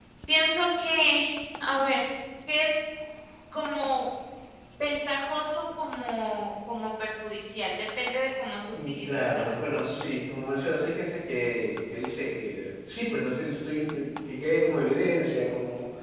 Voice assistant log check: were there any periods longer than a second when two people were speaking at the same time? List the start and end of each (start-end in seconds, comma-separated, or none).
8.7-10.0